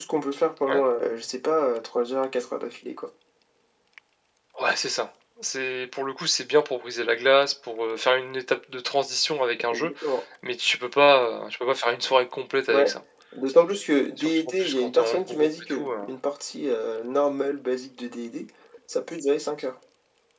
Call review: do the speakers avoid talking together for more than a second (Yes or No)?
No